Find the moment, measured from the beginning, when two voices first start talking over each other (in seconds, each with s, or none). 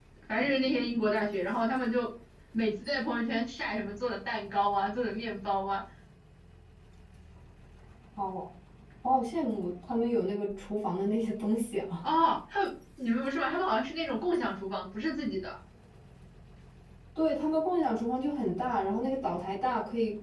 none